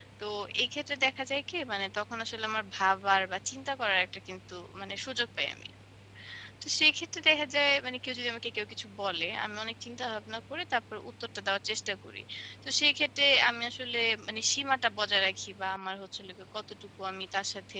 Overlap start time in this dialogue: none

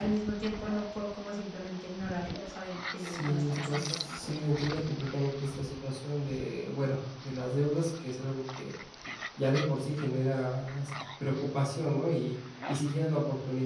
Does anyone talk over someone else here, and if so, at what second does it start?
3 s

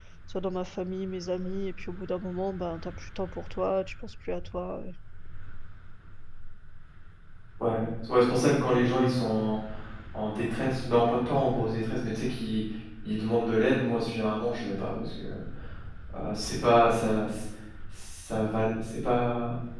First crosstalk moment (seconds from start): none

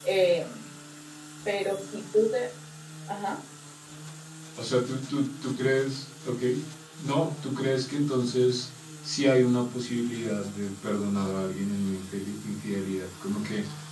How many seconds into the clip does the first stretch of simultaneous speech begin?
none

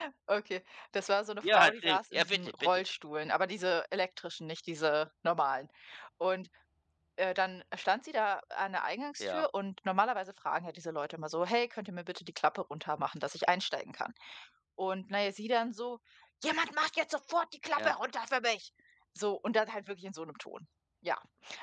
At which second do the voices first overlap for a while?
1 s

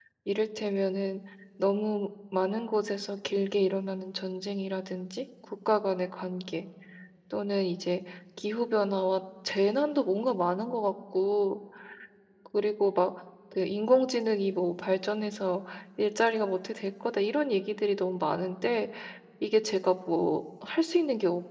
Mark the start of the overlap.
none

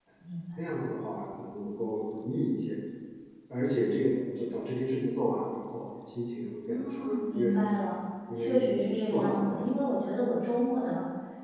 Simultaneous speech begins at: 7 s

